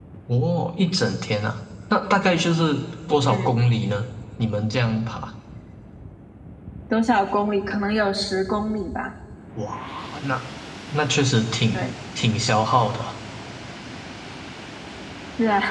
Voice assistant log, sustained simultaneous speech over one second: none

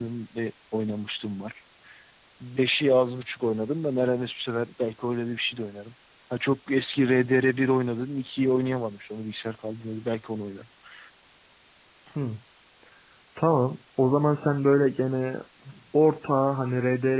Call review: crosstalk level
none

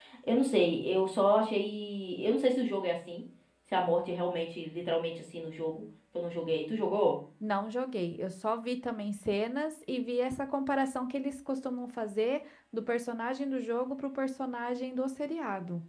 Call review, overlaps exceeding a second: none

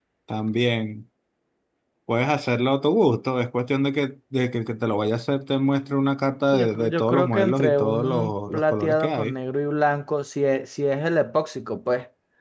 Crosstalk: present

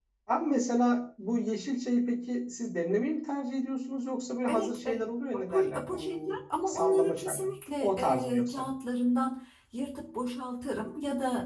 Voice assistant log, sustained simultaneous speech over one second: present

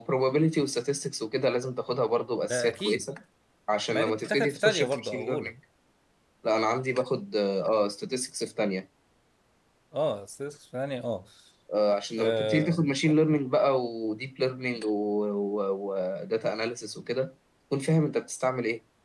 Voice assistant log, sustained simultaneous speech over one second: present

